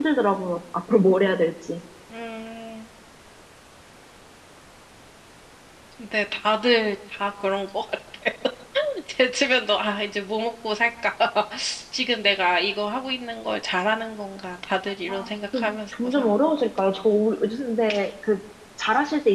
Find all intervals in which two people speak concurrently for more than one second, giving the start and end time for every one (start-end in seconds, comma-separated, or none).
15.1-16.5